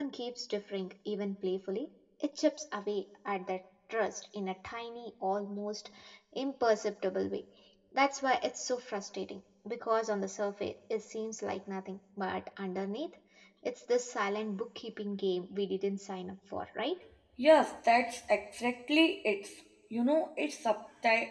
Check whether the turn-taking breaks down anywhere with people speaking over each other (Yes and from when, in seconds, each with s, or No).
No